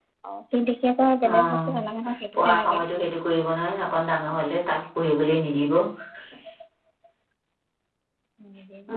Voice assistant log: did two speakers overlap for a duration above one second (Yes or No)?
No